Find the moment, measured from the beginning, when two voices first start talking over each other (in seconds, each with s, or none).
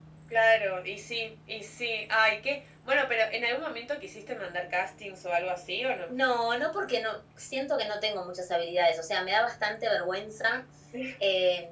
none